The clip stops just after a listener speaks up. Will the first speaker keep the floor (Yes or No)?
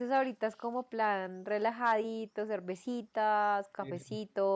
Yes